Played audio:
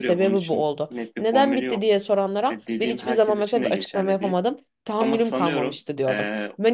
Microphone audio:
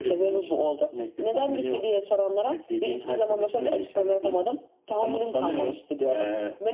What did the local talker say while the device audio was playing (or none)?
none